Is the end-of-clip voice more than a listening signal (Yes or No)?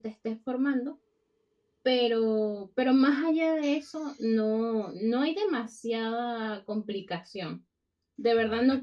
No